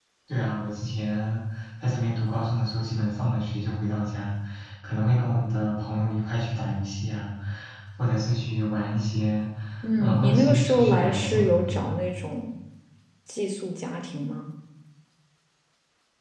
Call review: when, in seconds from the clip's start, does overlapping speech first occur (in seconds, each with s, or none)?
10.0 s